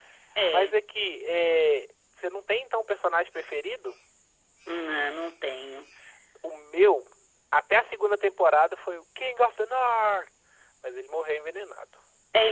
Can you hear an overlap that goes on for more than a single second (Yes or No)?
No